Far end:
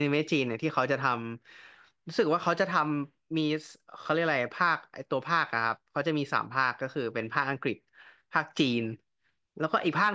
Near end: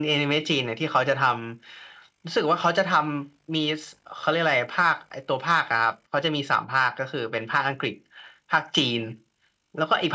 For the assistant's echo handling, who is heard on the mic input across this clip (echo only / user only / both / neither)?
echo only